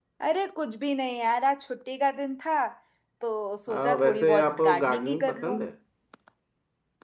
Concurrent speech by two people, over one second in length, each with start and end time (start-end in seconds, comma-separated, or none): 3.7-5.6